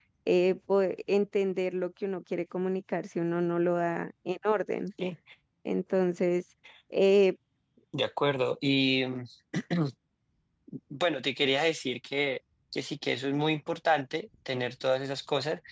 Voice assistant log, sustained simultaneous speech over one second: none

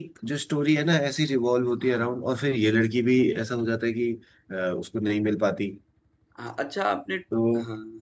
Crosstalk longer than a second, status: none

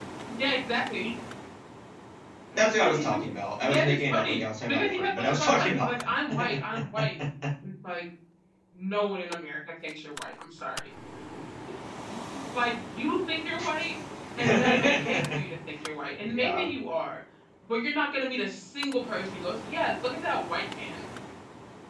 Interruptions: present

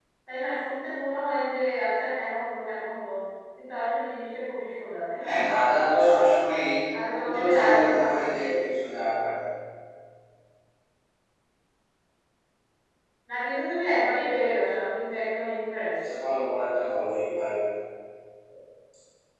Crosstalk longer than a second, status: present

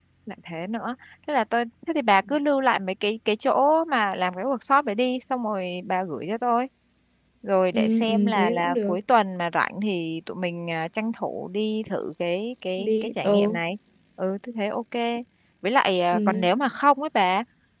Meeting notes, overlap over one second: present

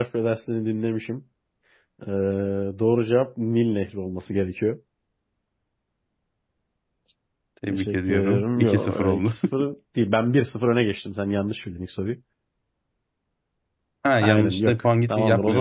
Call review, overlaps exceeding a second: present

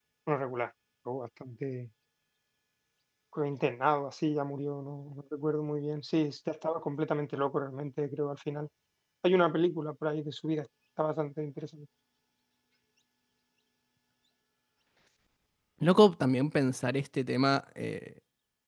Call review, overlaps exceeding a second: none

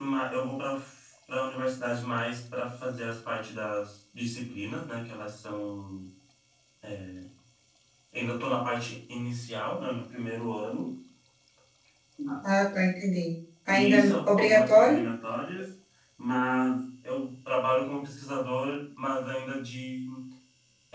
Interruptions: present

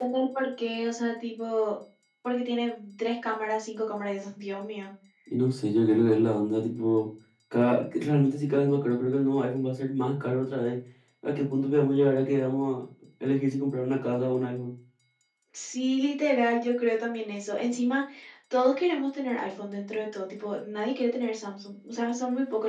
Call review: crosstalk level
none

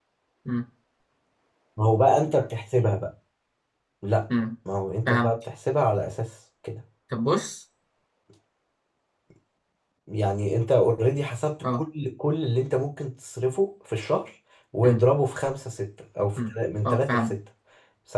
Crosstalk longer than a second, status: none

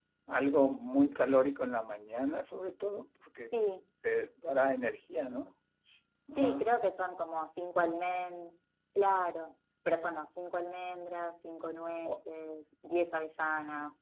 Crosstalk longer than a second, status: none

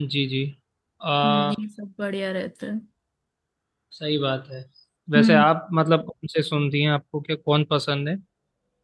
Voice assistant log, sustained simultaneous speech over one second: none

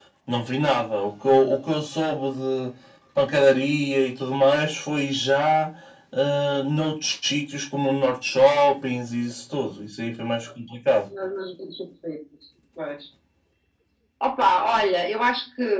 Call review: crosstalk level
none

